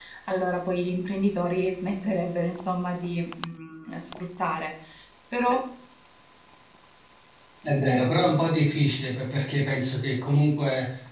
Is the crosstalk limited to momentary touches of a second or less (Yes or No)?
Yes